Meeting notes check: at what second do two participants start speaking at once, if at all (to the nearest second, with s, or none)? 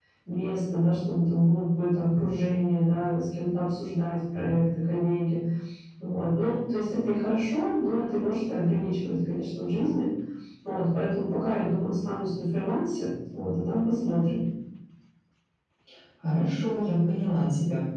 none